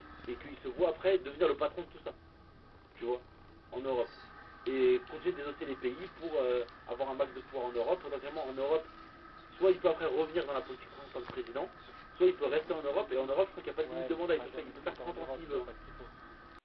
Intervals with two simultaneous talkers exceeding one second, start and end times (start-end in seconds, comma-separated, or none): 13.8-15.7